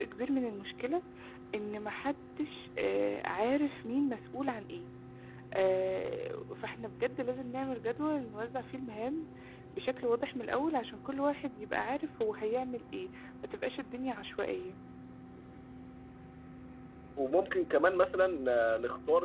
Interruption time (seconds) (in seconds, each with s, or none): none